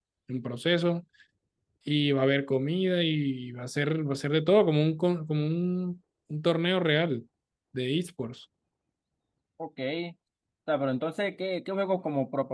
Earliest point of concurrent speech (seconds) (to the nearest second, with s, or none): none